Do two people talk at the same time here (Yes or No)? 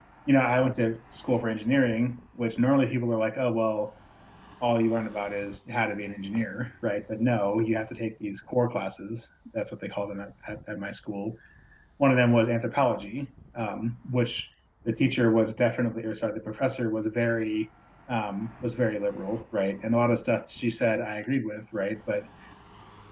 No